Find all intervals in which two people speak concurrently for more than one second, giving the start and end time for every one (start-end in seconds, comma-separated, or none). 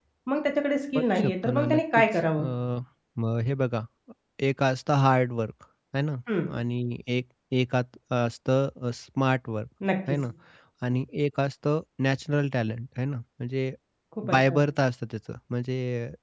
1.0-2.4